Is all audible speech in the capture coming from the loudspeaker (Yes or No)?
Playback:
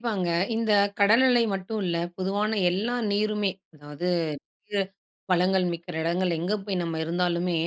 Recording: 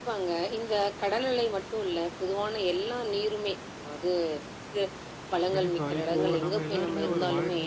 No